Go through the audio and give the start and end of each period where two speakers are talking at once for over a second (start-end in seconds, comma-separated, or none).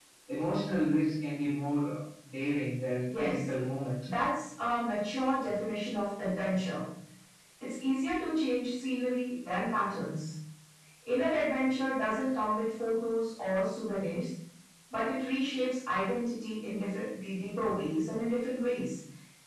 none